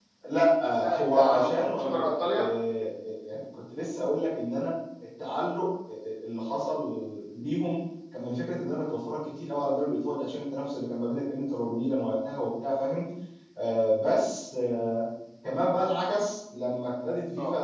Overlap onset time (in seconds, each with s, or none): 0.8 s